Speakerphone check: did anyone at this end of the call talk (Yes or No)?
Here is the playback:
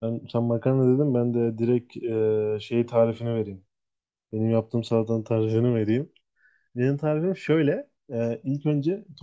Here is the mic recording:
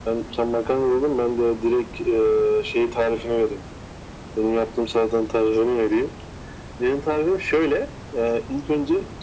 No